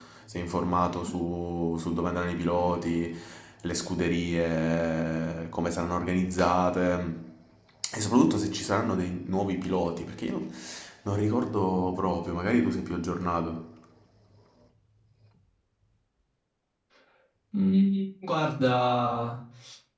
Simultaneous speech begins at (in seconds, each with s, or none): none